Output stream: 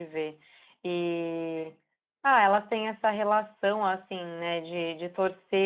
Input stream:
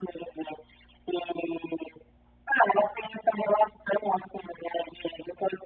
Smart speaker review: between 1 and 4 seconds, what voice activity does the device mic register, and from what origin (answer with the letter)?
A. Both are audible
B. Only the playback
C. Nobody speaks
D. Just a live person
B